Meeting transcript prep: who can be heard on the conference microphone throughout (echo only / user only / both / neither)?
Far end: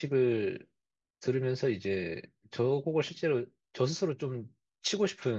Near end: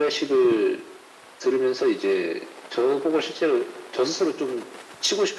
echo only